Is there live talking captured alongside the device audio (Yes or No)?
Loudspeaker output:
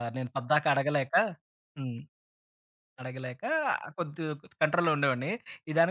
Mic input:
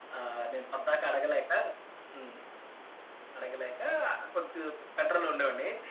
No